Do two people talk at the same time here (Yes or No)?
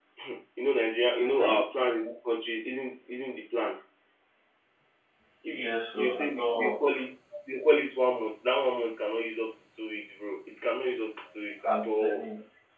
Yes